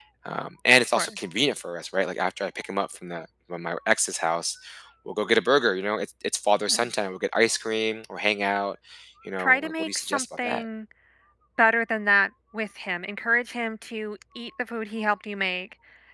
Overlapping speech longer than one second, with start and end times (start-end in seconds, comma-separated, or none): 9.4-10.7